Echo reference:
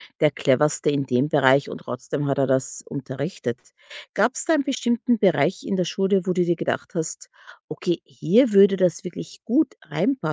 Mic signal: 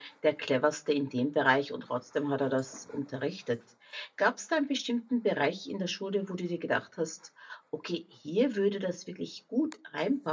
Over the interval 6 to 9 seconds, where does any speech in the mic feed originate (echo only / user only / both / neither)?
echo only